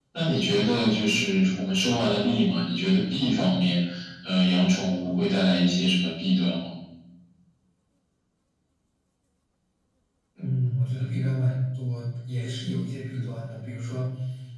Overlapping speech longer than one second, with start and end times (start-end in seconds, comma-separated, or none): none